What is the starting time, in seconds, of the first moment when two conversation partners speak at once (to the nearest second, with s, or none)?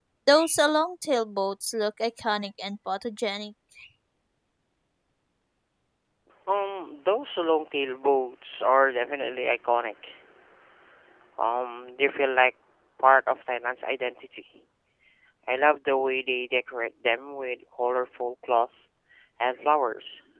none